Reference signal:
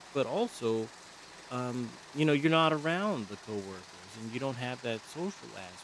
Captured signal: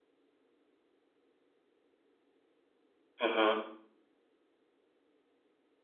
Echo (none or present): none